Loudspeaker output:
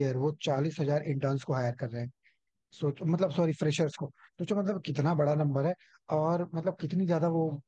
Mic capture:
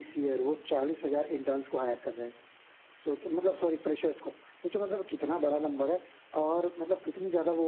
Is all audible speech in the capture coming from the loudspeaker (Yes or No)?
Yes